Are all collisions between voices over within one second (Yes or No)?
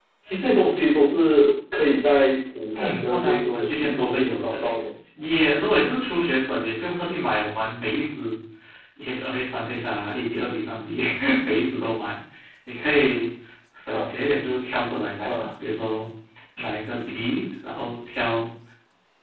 No